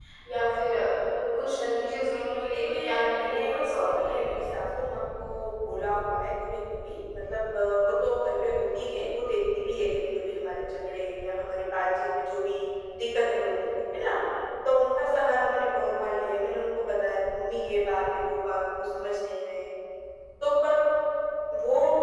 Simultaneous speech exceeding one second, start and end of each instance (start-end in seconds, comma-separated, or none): 2.0-4.3